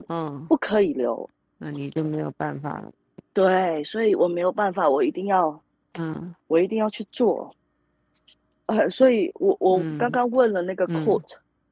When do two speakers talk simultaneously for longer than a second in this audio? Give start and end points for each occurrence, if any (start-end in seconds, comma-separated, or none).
none